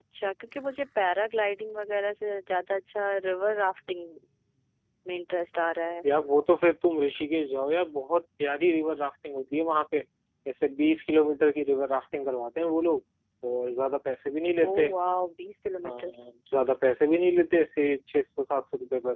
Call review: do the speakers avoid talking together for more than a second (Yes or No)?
Yes